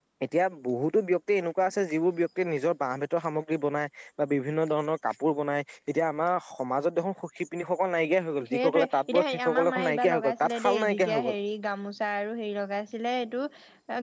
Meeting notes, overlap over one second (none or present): present